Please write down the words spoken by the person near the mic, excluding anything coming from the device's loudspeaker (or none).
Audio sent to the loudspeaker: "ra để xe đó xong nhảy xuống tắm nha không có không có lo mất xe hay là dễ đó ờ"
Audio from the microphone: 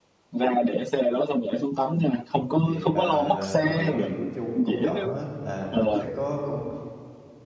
thì là bờ biển là của chung công cộng hết là nó sẽ có công